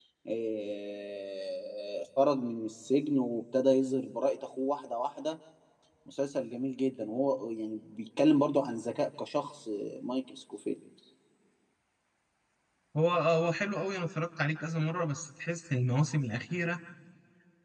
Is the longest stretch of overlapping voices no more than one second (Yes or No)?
Yes